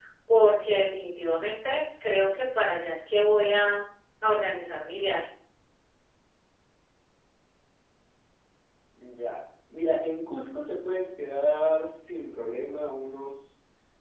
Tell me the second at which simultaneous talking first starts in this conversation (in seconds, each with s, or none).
none